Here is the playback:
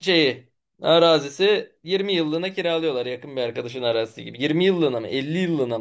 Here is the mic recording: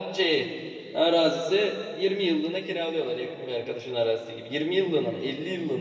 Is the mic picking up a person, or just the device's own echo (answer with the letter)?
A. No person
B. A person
A